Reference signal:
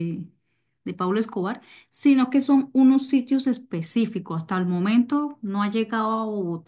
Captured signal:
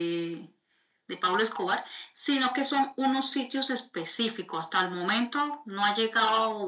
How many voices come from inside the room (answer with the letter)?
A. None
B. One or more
A